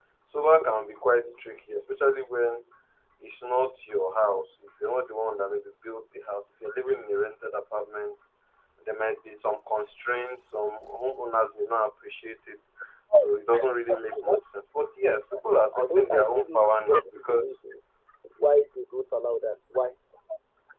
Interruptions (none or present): present